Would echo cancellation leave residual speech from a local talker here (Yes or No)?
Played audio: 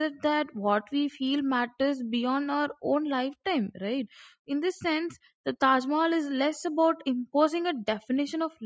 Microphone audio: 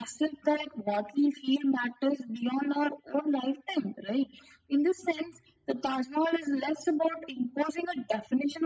No